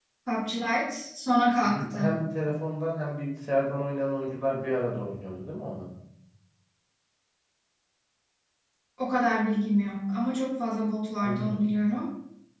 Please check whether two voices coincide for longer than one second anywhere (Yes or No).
No